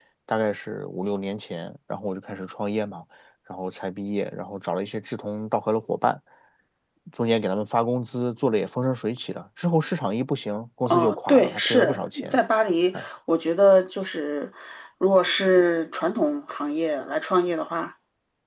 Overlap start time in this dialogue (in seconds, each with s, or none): 10.9 s